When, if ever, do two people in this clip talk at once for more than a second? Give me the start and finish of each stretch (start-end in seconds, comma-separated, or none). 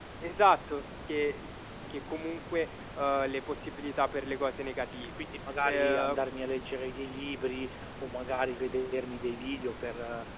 none